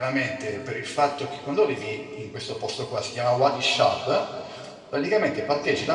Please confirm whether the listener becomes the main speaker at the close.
No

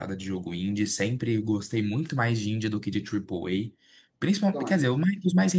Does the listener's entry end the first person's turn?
No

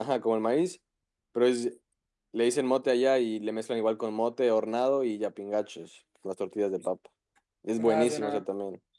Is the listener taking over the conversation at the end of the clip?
Yes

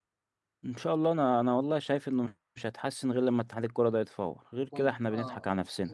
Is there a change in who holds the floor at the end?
Yes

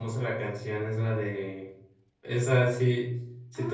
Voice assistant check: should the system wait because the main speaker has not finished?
No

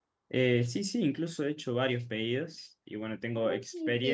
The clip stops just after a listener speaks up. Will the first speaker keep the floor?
No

